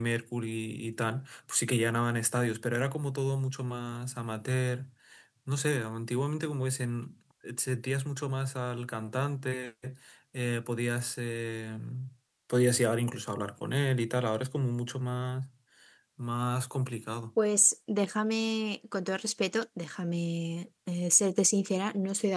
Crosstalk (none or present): none